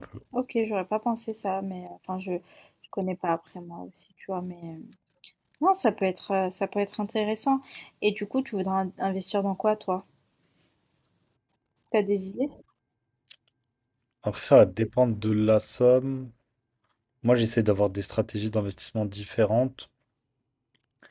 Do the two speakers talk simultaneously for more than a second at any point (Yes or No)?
No